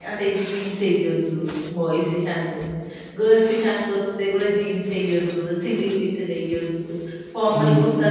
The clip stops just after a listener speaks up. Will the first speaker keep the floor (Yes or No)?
Yes